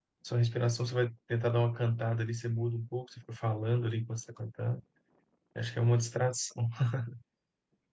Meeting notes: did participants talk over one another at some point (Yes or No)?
No